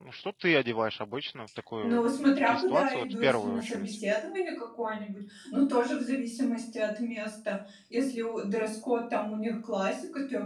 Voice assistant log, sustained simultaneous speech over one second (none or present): present